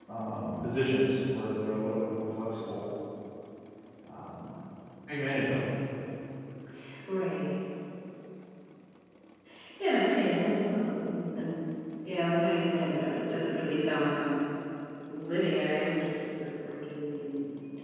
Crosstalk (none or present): none